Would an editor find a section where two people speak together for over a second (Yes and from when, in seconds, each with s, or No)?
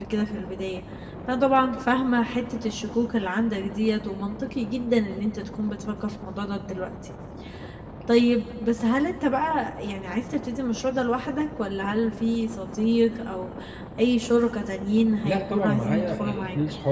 Yes, from 15.2 s